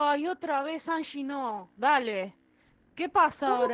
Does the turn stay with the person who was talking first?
No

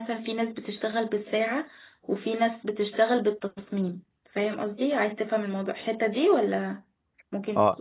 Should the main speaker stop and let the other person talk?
Yes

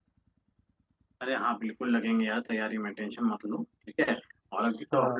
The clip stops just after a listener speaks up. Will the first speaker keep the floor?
Yes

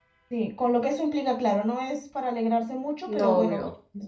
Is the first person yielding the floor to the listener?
No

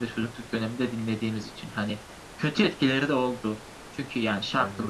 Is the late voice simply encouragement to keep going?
Yes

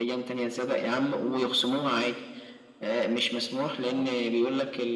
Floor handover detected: No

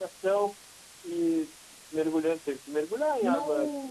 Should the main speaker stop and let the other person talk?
No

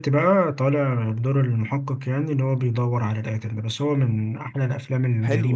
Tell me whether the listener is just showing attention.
No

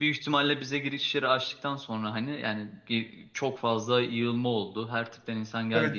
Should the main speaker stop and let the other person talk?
No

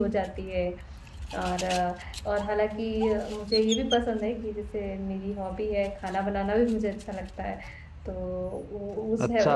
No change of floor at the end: No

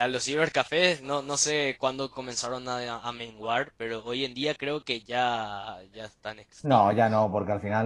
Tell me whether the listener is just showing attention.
No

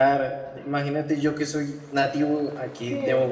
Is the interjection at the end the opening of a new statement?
No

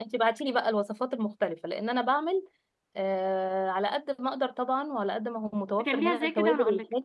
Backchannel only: No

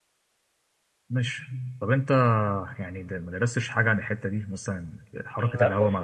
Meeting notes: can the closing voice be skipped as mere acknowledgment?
No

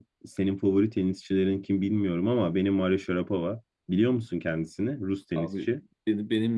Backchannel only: No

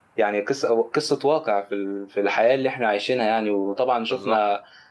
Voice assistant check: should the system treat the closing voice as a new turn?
No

